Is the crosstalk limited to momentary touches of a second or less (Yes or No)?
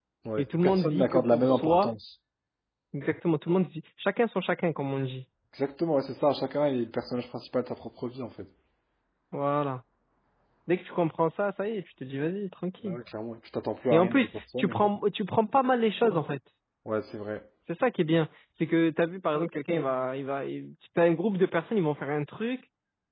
No